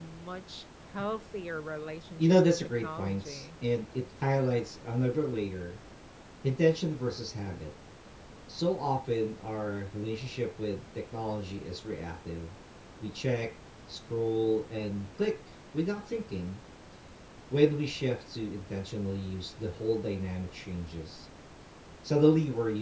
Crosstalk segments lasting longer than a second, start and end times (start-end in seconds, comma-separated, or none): 2.2-3.4